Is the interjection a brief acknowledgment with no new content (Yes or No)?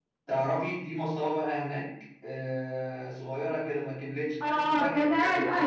No